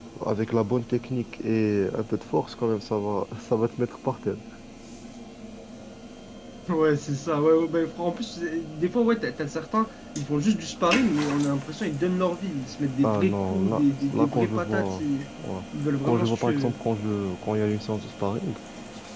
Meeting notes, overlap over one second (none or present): present